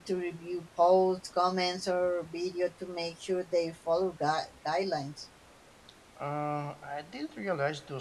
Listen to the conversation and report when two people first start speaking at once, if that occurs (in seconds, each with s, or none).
none